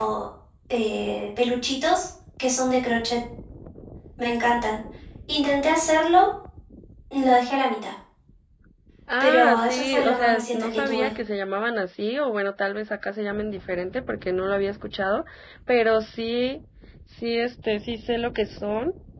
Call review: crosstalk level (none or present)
present